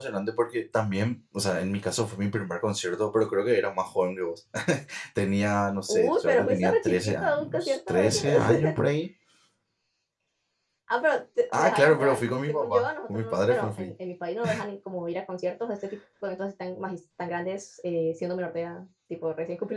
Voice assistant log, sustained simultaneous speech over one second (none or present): present